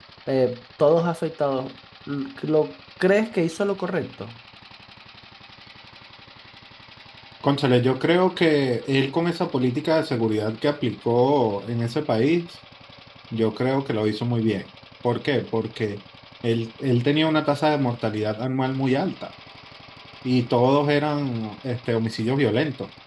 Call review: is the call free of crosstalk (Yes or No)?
Yes